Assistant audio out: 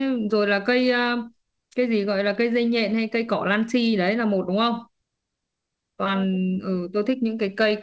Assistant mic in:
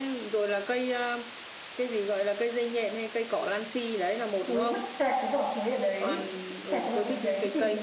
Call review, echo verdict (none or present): present